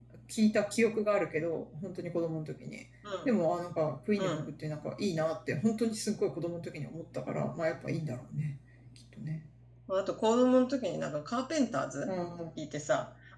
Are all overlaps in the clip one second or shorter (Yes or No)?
Yes